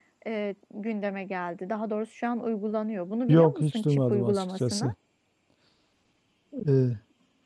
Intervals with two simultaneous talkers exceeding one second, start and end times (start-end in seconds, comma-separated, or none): 3.3-4.9